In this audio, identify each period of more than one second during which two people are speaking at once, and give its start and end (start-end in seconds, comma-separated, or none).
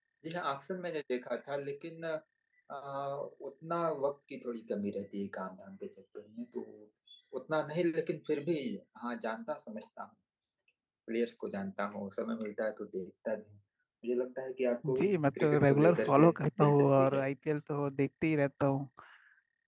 15.0-17.2